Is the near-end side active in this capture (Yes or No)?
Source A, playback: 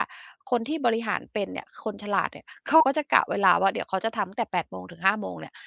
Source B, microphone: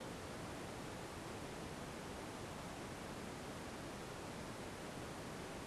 No